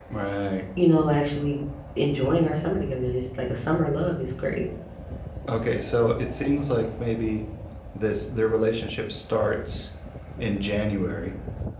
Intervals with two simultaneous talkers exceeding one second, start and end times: none

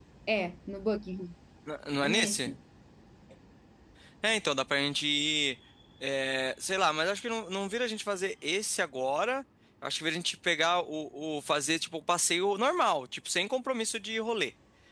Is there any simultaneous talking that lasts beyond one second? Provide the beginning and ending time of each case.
none

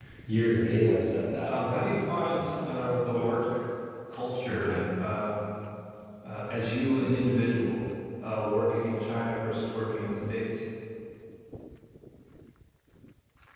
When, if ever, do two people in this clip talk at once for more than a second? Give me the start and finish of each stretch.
1.4-3.3

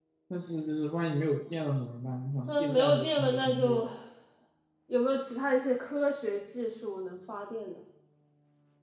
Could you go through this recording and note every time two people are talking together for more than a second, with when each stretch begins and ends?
2.5-3.8

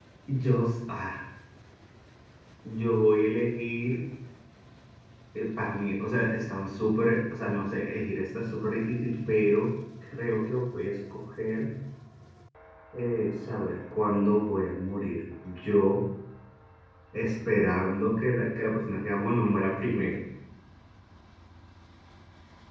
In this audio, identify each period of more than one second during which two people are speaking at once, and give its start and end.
none

